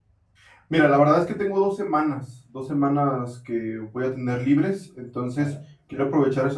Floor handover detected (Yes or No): No